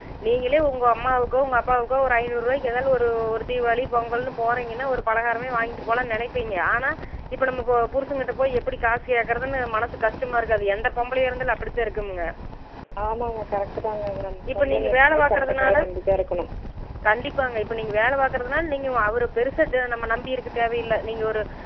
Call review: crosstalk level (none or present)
present